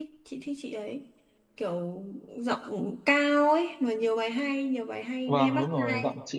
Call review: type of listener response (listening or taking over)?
taking over